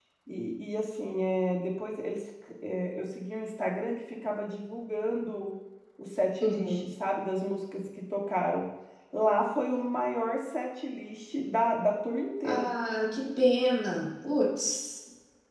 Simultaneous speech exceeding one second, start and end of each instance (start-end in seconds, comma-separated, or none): none